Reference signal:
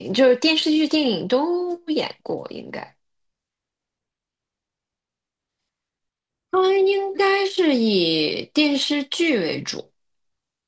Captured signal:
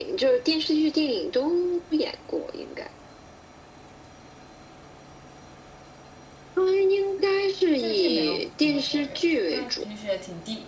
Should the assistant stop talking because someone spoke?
Yes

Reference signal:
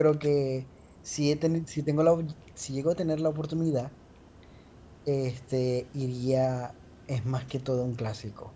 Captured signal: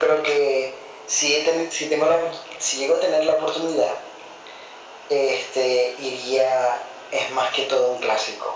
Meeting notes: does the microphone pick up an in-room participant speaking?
No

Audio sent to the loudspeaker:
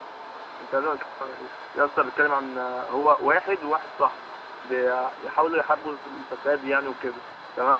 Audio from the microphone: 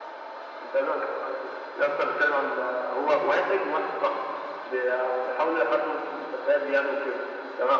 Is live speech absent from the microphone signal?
Yes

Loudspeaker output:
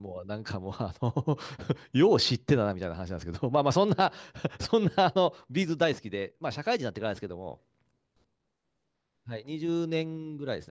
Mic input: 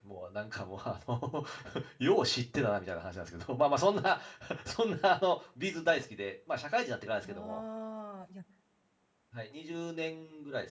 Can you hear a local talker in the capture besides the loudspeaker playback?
Yes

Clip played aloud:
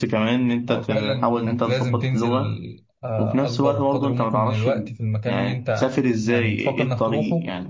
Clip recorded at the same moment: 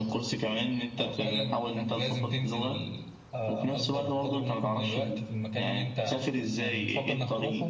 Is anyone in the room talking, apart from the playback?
No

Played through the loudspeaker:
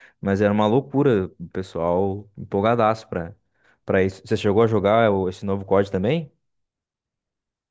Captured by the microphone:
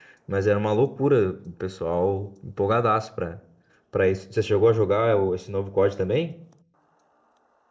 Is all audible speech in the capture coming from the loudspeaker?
Yes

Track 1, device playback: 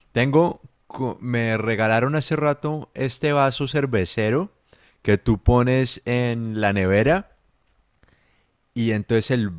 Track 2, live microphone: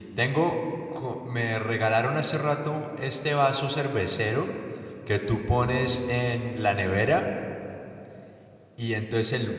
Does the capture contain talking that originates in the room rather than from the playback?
No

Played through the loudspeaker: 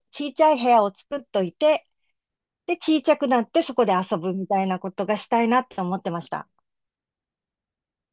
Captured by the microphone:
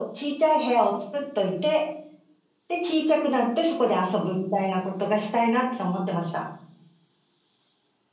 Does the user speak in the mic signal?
No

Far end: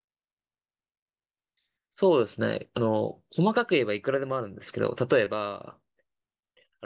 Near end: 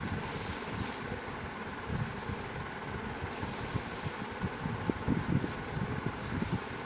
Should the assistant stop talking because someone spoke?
No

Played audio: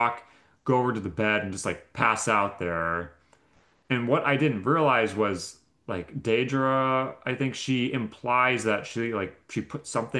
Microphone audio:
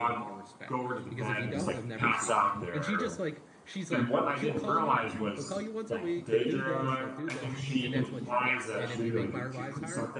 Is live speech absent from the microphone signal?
No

